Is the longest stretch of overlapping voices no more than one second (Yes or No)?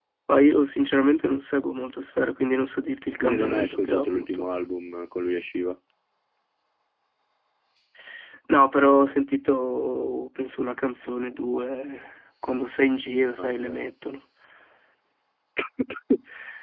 No